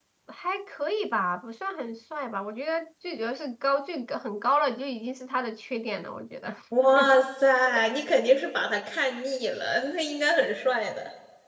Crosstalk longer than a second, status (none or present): none